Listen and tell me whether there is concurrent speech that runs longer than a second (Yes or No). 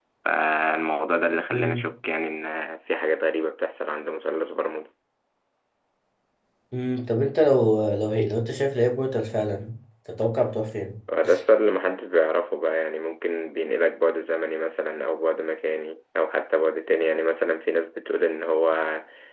No